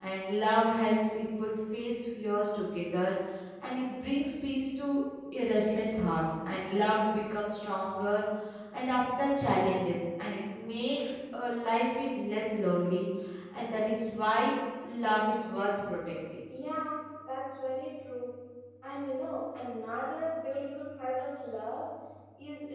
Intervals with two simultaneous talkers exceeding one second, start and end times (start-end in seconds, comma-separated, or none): none